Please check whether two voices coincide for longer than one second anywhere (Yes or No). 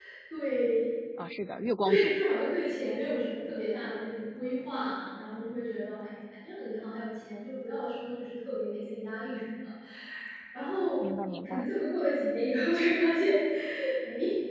No